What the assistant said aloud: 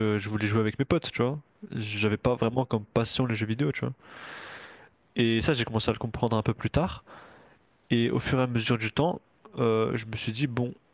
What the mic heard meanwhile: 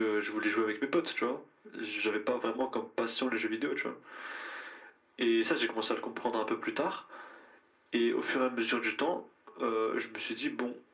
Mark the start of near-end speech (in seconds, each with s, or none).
none